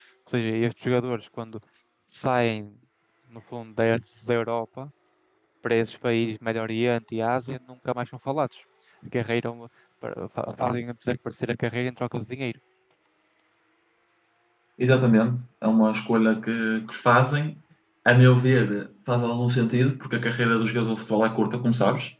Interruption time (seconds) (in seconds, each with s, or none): none